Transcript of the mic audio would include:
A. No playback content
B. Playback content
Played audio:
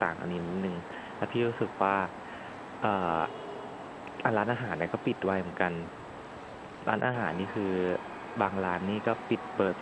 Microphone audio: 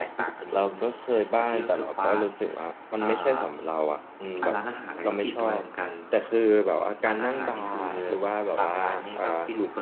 B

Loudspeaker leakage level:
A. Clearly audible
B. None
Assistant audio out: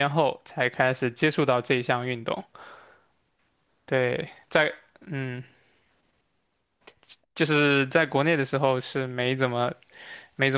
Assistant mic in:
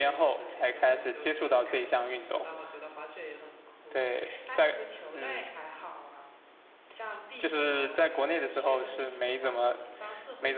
A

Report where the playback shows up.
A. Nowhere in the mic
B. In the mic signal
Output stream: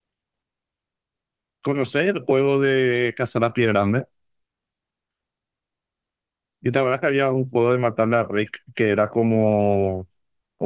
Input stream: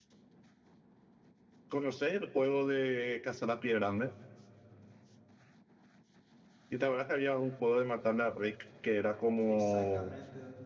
B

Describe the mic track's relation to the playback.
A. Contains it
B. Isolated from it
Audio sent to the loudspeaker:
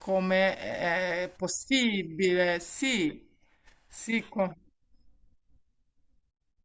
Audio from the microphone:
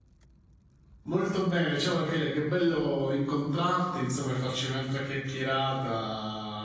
B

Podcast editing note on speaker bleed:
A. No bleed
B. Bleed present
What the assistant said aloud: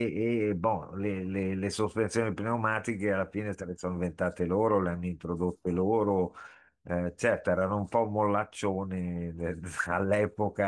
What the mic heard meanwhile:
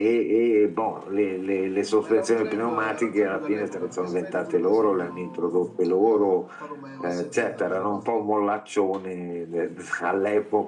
B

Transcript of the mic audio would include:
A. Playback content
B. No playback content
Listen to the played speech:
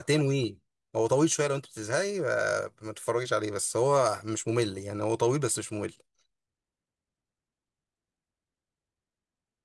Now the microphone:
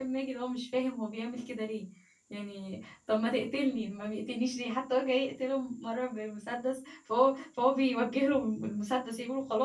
B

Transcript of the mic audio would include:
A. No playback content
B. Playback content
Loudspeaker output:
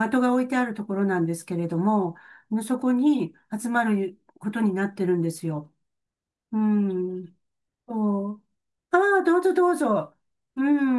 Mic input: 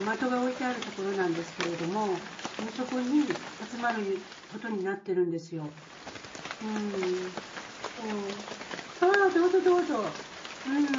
B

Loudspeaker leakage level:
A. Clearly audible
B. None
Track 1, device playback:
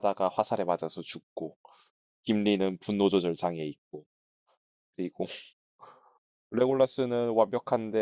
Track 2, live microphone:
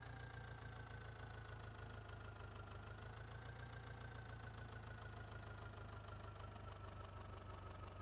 B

